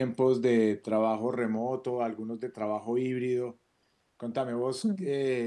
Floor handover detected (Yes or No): No